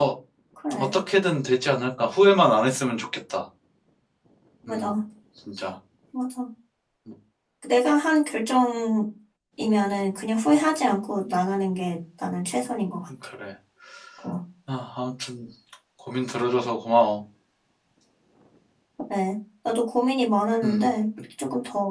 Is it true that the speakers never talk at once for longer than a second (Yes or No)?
Yes